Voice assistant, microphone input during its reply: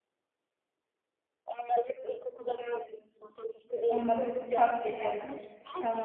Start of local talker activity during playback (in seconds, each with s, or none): 3.8 s